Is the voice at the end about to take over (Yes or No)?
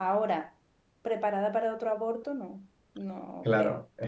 Yes